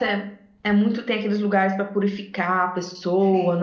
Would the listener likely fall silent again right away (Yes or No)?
No